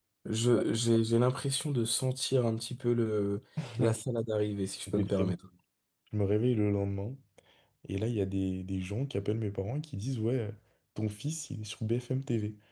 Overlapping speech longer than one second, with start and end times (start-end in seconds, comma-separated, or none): none